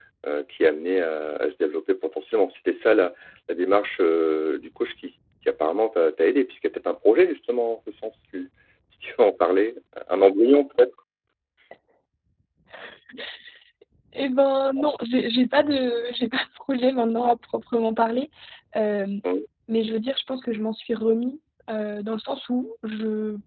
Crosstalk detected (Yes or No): No